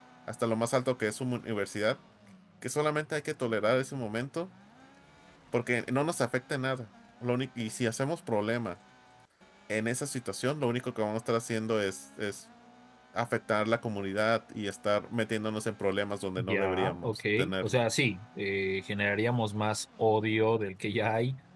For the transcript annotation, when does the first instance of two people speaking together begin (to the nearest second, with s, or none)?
16 s